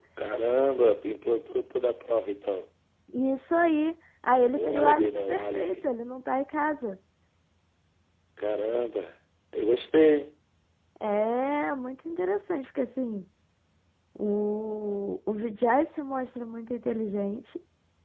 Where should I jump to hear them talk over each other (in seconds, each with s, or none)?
4.5 s